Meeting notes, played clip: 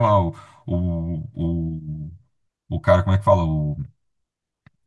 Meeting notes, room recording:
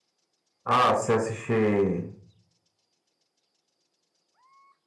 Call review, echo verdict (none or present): none